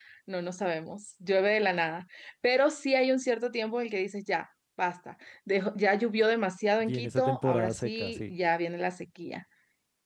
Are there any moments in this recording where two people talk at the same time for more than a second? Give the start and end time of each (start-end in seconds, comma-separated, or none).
6.8-8.3